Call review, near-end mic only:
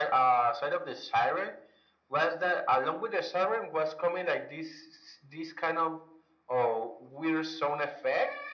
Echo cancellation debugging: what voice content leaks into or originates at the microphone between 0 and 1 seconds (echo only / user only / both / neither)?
echo only